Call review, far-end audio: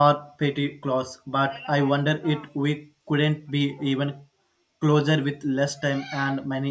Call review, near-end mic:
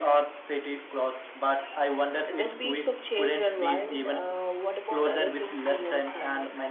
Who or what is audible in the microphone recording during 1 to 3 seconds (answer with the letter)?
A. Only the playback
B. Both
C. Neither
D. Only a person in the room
B